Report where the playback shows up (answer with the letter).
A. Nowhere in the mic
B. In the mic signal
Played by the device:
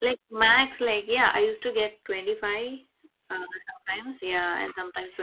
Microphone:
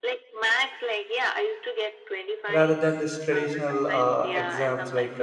B